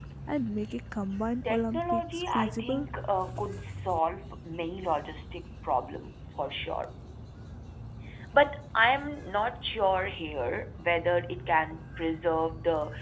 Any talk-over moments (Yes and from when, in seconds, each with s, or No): Yes, from 1.4 s